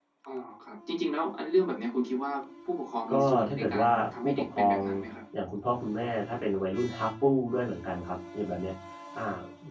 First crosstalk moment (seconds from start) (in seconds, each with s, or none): 3.1 s